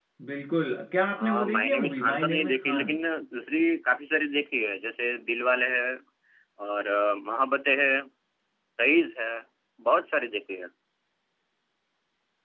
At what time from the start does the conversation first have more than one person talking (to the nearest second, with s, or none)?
1 s